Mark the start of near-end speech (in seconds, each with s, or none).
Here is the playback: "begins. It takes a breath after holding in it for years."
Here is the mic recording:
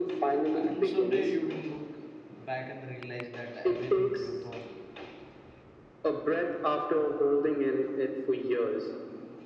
0.5 s